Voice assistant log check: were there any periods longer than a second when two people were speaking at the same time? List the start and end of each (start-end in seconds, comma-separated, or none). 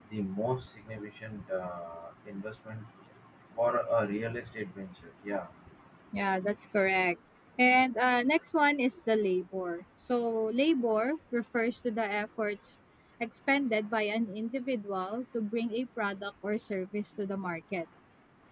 none